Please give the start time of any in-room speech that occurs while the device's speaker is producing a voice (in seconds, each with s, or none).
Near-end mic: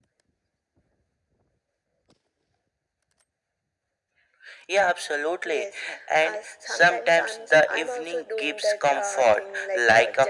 none